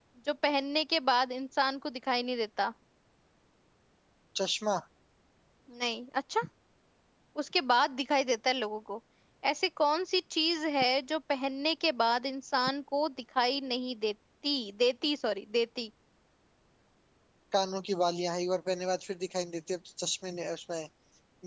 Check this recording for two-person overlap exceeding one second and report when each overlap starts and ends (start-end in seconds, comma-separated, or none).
none